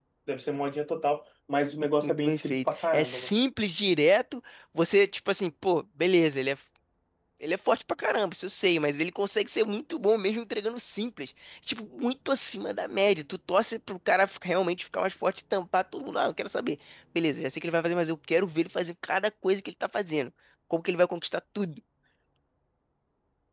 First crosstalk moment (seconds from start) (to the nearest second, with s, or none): 2 s